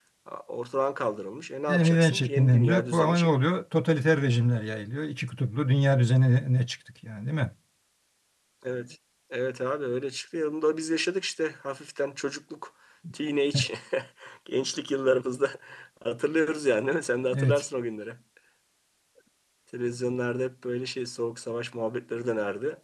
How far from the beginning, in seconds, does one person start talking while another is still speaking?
2 s

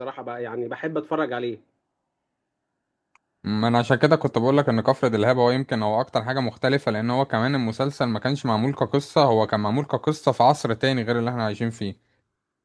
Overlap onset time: none

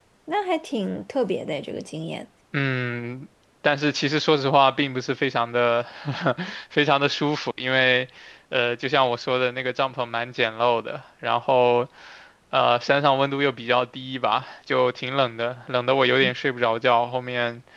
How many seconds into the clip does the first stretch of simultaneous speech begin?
none

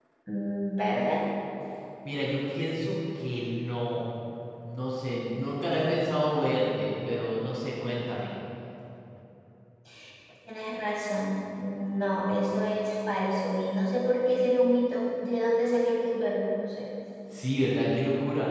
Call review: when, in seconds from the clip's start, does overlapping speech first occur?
none

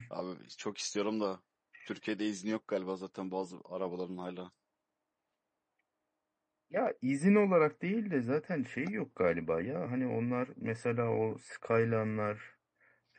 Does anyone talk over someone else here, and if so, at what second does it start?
none

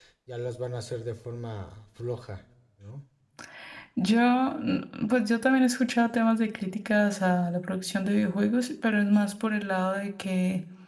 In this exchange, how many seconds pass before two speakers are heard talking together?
none

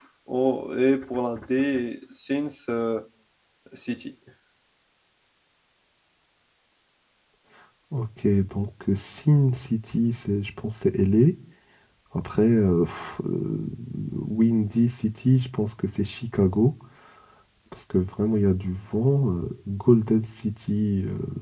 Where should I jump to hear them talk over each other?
none

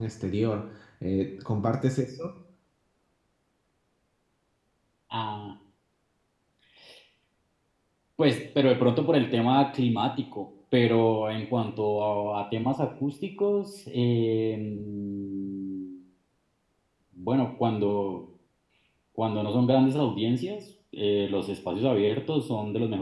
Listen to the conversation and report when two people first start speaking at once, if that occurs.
none

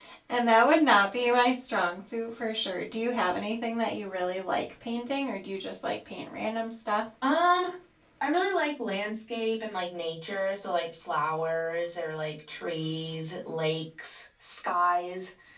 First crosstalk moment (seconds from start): none

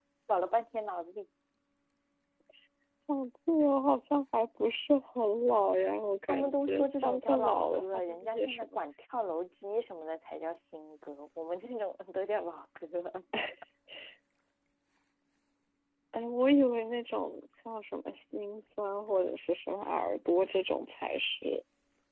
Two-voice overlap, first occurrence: 6 s

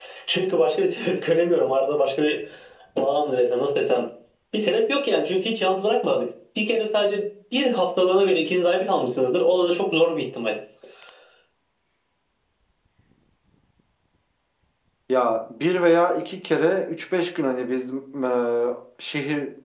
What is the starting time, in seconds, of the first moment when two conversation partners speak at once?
none

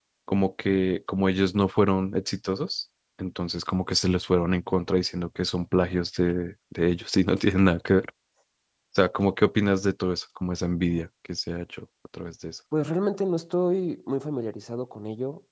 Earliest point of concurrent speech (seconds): none

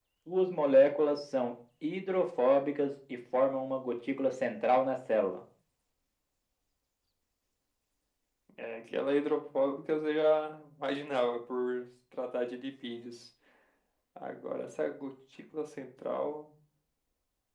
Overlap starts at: none

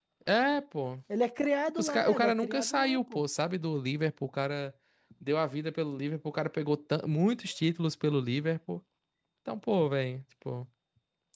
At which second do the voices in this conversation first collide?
2 s

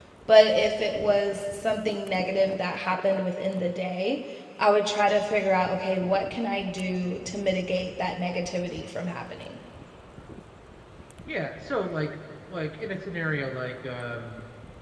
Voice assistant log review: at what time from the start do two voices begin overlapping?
none

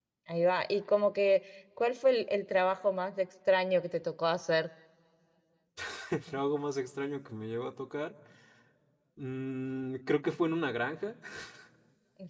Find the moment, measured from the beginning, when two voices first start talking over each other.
none

